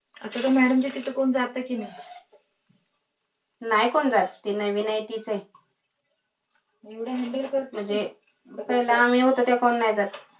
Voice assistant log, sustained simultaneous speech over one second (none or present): none